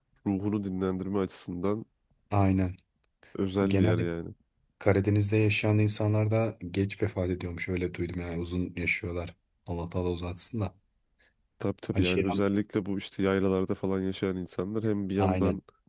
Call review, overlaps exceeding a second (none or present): none